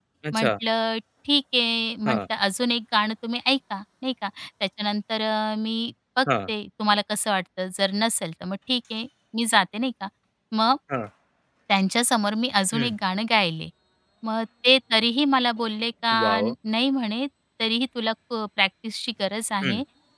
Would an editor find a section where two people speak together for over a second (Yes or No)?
No